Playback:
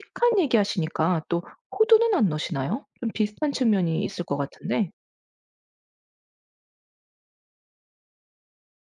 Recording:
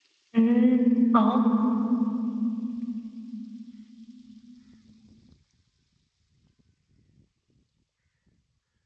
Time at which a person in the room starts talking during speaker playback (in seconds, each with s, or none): 0.4 s